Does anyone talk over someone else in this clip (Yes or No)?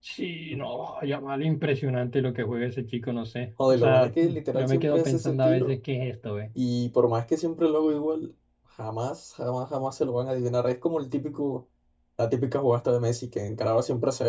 Yes